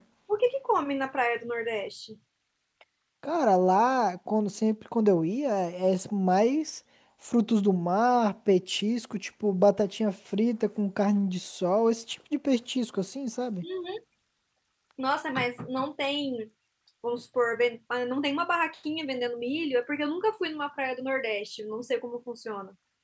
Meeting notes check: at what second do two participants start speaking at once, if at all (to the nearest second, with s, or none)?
none